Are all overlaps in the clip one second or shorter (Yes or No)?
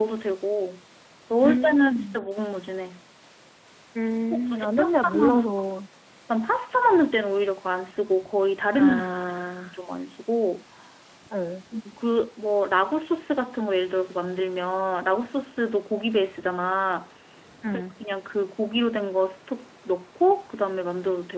No